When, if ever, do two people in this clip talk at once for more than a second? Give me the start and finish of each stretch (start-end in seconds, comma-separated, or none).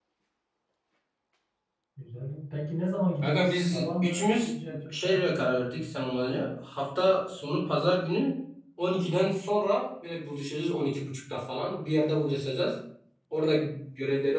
3.2-5.2